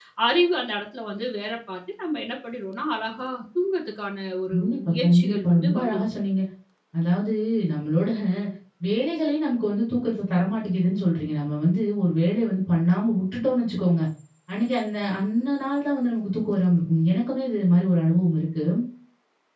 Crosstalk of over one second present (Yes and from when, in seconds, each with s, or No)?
Yes, from 4.5 s